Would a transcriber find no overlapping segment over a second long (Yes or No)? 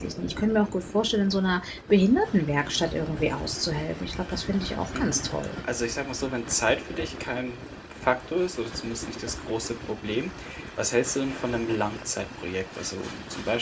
Yes